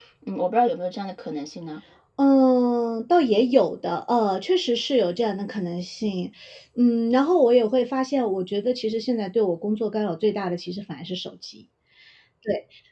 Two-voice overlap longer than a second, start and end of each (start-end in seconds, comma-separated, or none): none